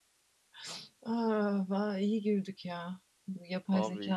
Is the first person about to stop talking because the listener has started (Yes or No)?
No